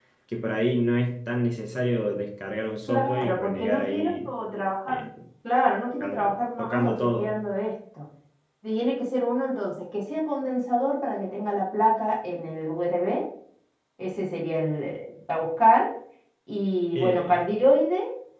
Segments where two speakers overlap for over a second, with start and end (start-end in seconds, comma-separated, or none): 2.9-4.1, 6.0-7.3